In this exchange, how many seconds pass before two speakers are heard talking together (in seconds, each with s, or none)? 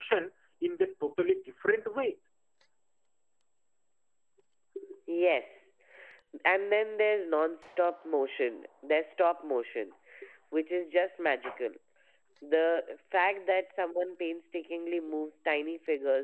none